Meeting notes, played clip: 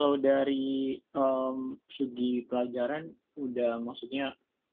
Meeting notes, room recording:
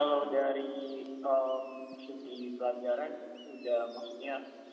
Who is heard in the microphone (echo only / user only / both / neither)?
echo only